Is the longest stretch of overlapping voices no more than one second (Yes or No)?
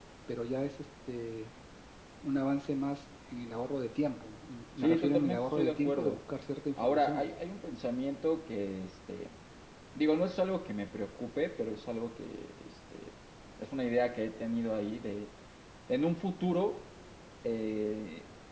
No